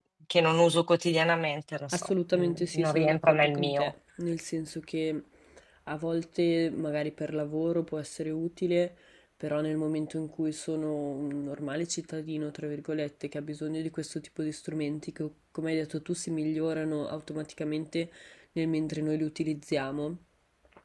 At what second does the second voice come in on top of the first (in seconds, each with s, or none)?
1.9 s